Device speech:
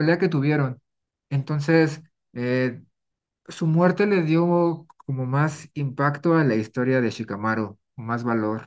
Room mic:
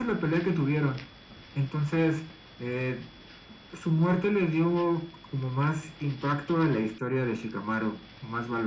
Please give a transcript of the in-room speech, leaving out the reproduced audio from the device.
none

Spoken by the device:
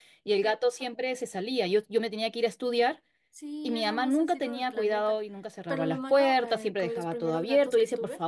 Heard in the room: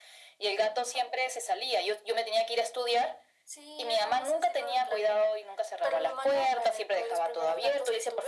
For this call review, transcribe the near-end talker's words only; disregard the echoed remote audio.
none

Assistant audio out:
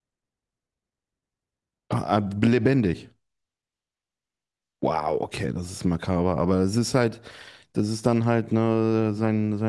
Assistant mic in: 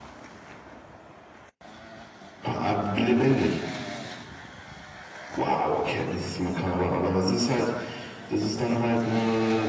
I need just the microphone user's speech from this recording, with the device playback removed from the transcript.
none

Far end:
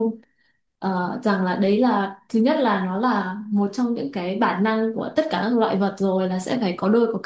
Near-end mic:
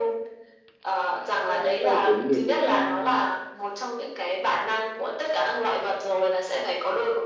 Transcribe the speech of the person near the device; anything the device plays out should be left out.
à, tài chính thì cũng ờ,

